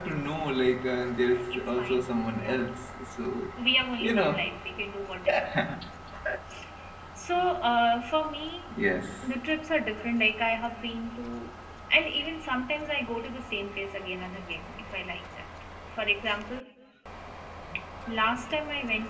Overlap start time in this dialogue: 1.3 s

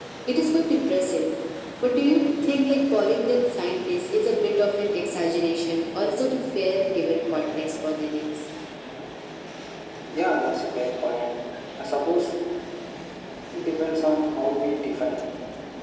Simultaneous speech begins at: none

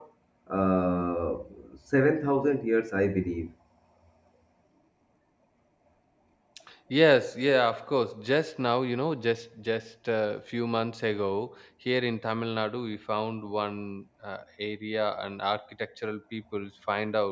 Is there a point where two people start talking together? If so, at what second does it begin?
none

